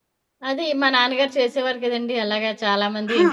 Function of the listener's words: listening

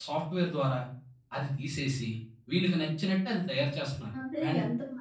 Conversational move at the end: taking over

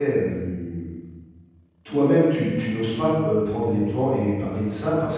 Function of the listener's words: listening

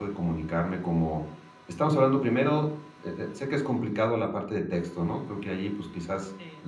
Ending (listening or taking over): listening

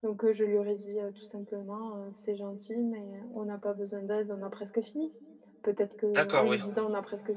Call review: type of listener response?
listening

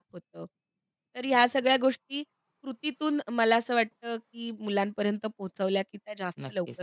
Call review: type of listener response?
taking over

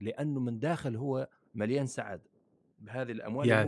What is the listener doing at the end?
listening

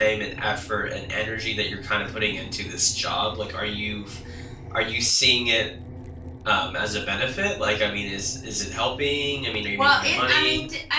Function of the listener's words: taking over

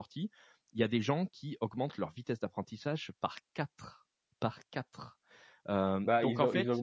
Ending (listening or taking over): taking over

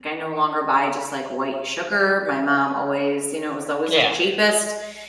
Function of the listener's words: listening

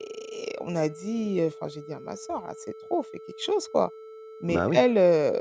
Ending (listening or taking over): listening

